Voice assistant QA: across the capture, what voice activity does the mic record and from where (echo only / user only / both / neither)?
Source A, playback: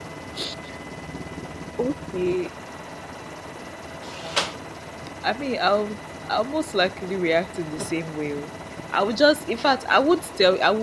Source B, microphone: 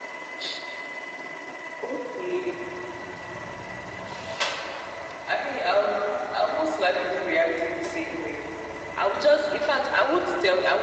echo only